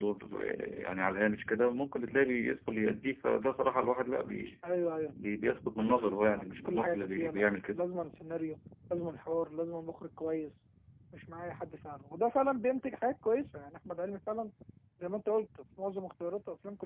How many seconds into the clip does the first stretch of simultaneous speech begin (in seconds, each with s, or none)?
5.8 s